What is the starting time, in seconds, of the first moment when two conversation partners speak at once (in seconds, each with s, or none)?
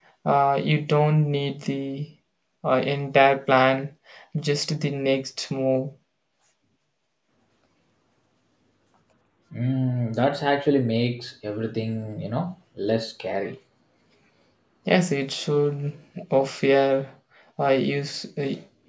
none